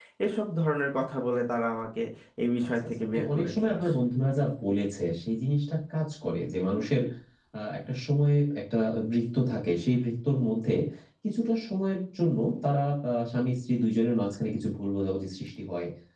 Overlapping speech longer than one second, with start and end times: 2.7-4.0

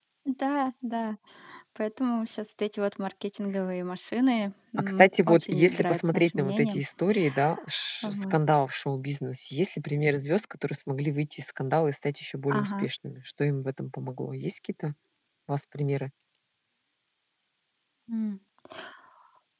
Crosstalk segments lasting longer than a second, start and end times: 4.8-6.8

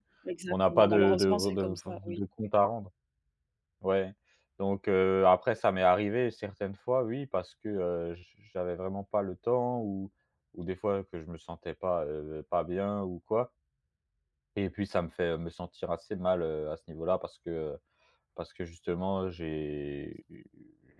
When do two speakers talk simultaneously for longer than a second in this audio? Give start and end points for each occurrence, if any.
0.5-2.2

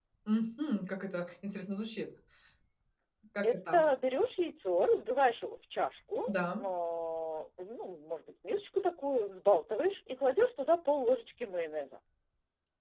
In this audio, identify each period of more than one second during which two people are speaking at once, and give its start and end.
none

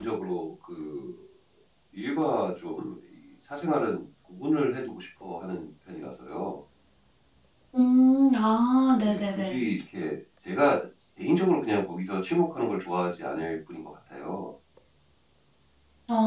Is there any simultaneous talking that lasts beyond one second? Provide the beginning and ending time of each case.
none

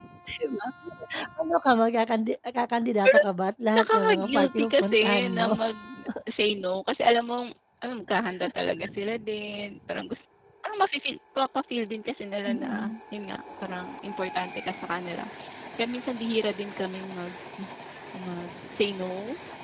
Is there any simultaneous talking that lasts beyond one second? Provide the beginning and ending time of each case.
3.7-5.5

